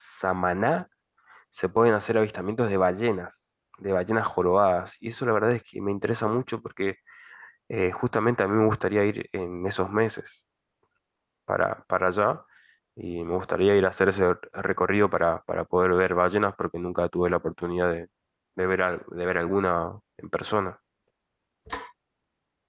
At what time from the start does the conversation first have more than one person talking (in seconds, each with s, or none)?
none